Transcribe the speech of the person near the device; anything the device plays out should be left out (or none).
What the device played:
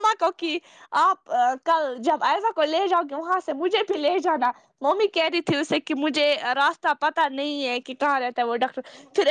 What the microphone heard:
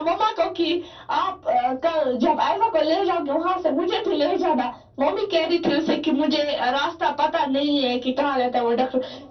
none